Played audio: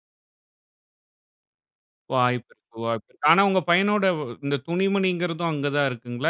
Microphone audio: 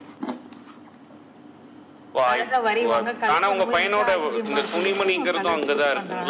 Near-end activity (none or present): present